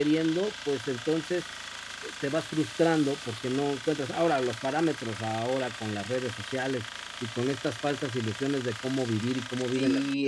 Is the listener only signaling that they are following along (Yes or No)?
No